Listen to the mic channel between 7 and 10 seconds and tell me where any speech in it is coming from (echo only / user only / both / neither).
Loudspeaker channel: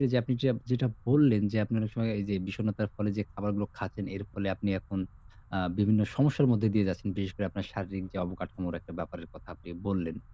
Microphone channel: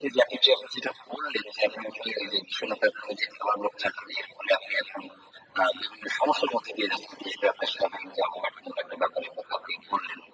echo only